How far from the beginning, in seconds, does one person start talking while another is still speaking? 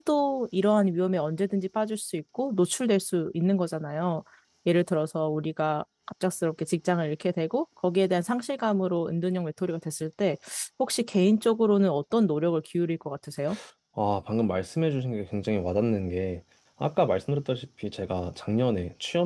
none

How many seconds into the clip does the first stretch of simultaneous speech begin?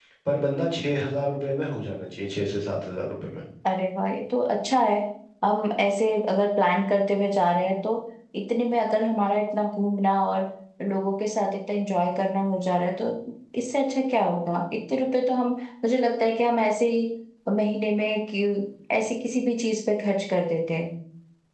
none

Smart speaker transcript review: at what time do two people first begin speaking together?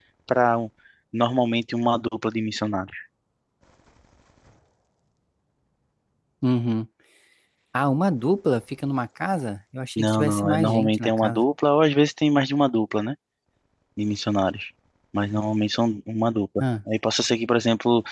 10 s

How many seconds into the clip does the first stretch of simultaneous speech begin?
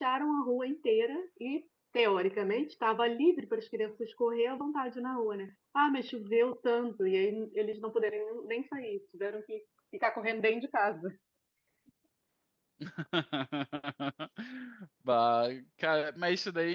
none

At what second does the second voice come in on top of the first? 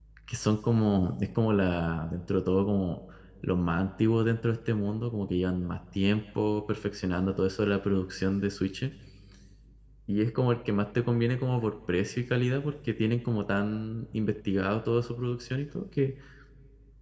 none

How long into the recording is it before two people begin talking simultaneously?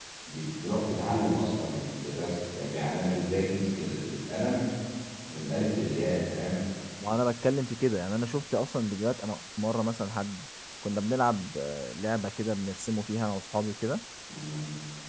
none

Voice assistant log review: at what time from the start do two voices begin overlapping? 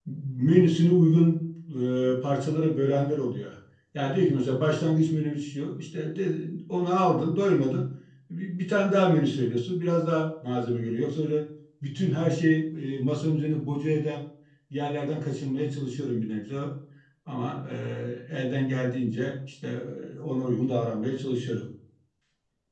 none

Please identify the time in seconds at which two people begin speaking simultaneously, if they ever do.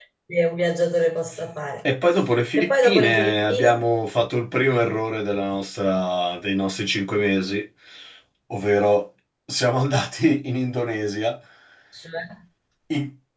3 s

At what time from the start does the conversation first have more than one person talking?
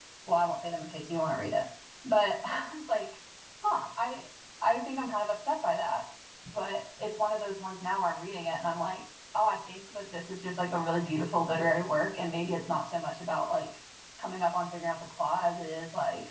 none

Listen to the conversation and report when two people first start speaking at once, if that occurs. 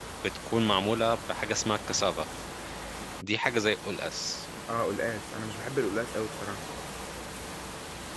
none

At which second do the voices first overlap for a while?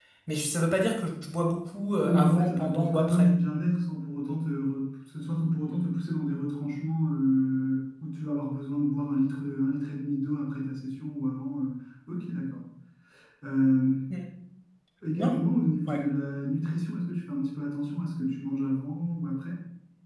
2 s

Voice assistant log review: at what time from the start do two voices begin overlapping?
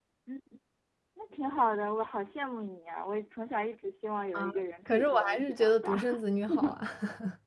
4 s

